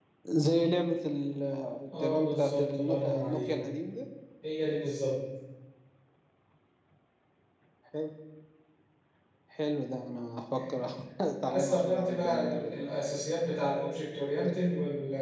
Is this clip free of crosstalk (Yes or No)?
No